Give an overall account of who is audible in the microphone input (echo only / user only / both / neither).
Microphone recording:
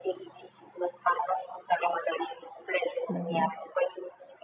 both